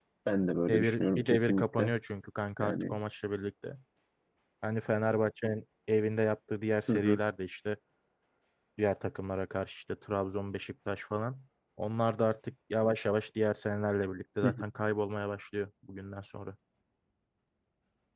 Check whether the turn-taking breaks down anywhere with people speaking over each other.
Yes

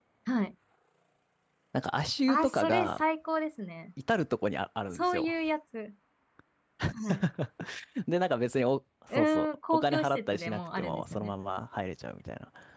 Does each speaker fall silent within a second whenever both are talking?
No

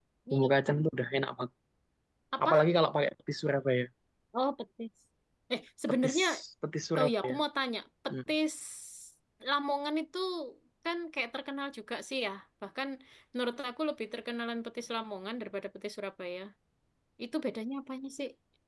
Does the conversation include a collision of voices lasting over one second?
No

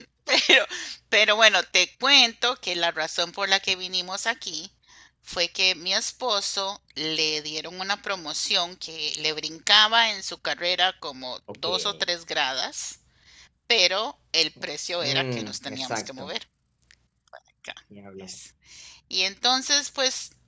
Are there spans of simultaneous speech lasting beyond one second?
Yes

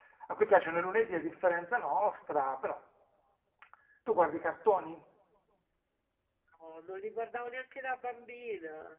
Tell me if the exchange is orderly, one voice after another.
Yes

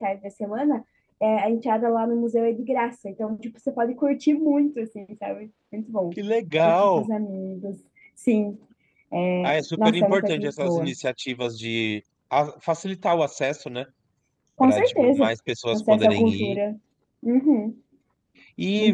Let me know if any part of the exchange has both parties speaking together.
Yes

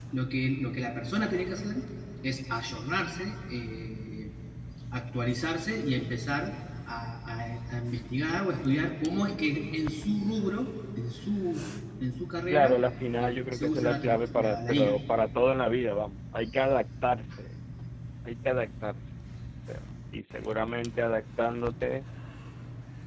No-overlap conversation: No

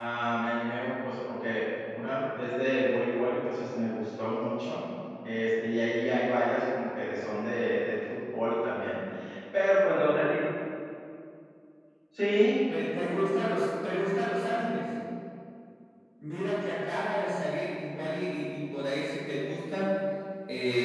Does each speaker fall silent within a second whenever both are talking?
Yes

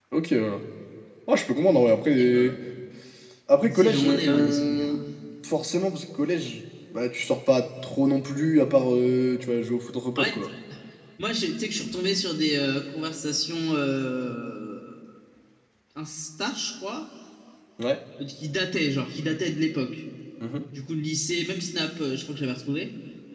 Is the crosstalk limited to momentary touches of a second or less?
No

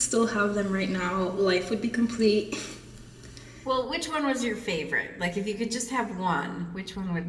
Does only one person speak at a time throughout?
Yes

